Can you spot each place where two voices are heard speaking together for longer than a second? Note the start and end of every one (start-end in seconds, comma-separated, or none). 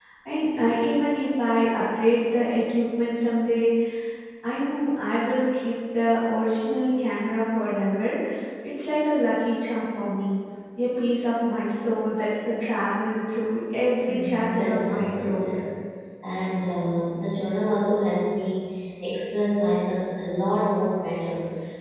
14.1-15.4